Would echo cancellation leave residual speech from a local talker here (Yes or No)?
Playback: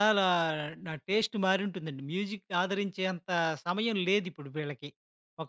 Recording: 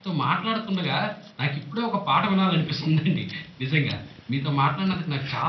Yes